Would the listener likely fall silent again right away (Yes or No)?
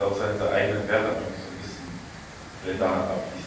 No